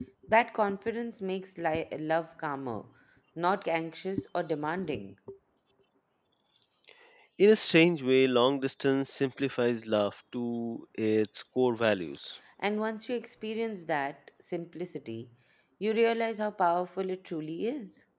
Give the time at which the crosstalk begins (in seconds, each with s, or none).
none